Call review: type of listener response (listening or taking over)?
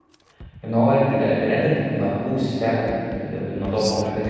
listening